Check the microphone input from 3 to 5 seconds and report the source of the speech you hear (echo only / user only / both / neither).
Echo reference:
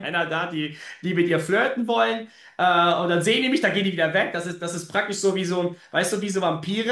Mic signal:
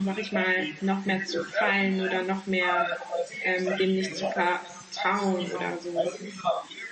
both